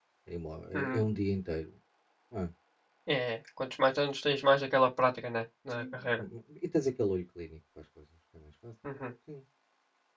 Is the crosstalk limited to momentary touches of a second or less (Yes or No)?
Yes